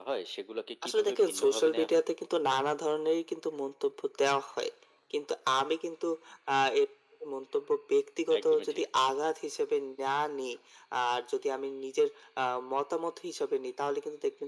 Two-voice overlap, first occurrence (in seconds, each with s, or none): 0.8 s